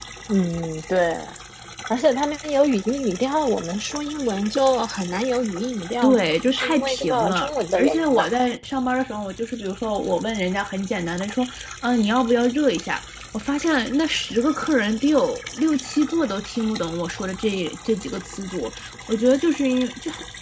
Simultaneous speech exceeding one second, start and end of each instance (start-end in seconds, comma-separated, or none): 6.0-8.3